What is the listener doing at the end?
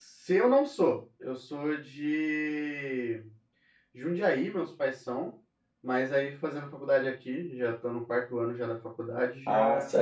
taking over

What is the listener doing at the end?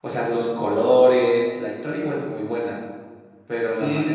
listening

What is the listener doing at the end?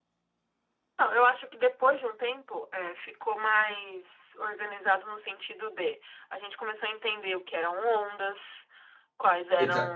listening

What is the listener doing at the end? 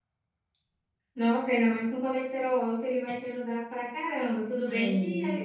listening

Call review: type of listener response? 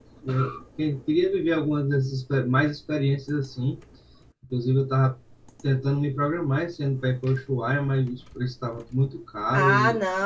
taking over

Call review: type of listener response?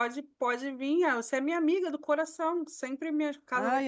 taking over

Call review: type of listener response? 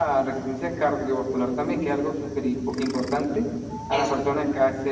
listening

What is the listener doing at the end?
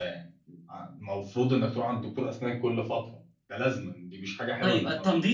taking over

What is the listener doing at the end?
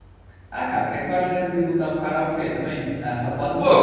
taking over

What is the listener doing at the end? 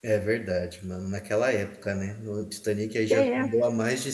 listening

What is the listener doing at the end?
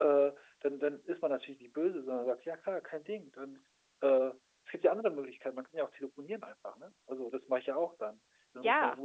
listening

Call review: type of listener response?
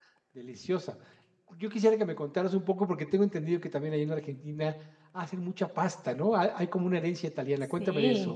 taking over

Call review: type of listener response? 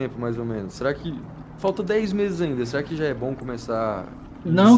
taking over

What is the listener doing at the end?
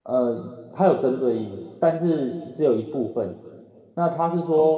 listening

